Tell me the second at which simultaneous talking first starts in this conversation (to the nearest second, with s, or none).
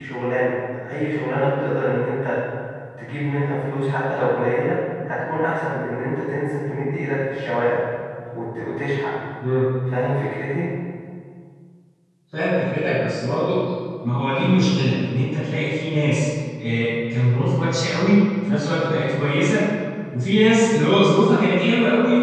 none